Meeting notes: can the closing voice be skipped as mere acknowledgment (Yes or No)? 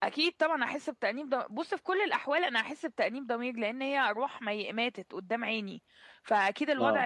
Yes